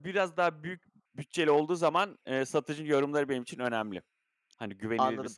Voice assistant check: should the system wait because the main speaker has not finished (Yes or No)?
No